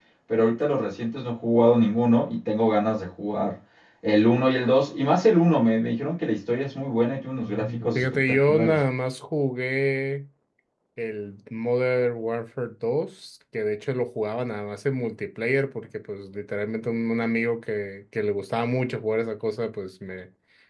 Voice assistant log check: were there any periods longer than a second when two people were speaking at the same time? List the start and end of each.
7.4-8.8

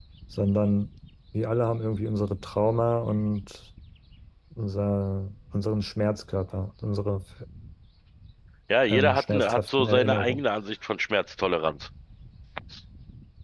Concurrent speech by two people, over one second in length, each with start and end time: 8.9-10.4

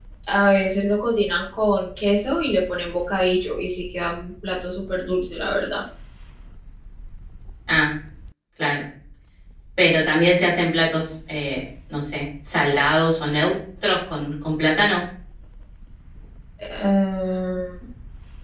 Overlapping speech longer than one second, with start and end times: none

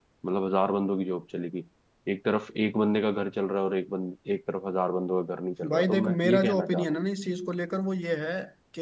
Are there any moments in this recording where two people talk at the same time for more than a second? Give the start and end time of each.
5.7-7.0

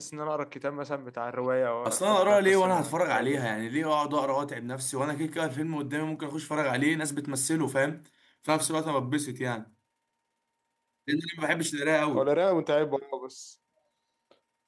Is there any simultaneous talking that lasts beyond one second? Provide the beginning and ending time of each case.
1.9-3.4

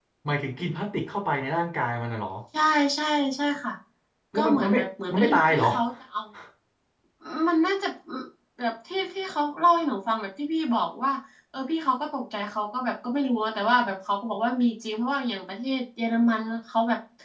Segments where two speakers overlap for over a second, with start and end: 4.3-5.7

